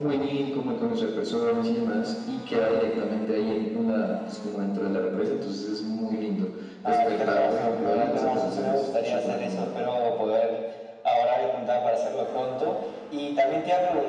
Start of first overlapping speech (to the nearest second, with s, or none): 7 s